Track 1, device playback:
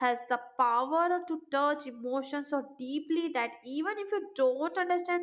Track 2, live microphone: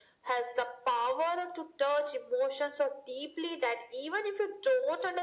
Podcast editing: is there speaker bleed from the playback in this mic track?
Yes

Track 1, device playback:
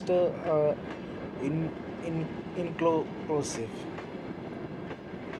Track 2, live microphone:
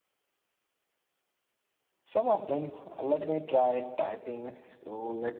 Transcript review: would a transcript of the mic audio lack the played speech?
Yes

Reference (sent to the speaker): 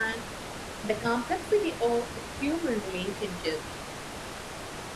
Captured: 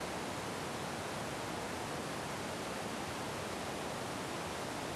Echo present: No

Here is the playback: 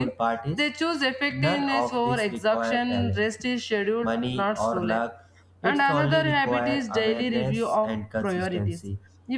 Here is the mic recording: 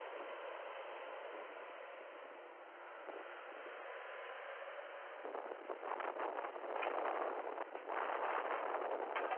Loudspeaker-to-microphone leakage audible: No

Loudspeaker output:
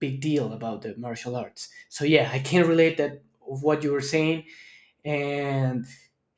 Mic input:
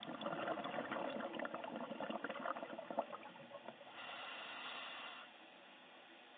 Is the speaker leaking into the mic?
No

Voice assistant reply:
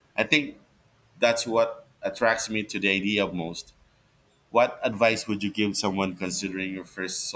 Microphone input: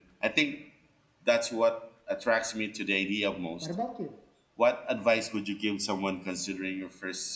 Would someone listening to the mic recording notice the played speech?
Yes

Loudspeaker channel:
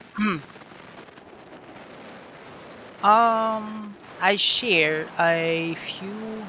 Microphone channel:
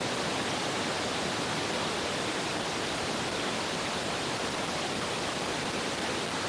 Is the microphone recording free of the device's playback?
Yes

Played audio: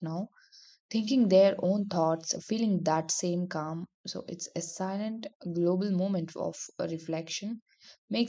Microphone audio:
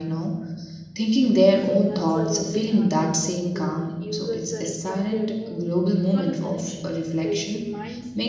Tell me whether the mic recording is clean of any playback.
No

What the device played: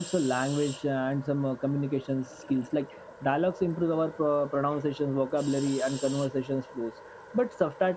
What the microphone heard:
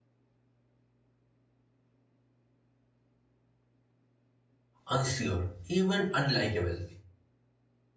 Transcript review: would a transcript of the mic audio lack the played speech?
Yes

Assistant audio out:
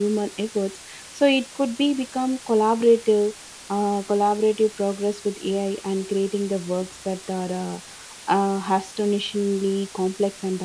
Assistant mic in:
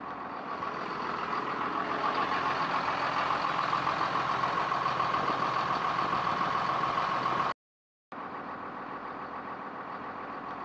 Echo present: No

